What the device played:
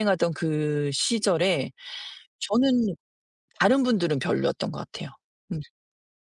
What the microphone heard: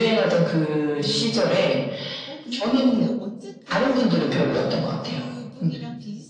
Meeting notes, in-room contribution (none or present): present